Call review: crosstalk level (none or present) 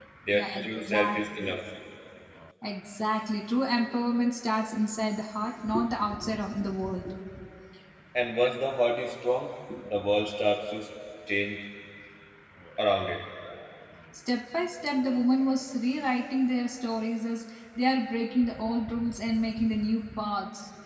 present